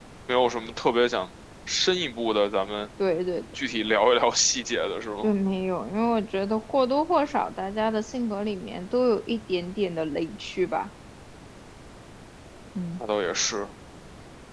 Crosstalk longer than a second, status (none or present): none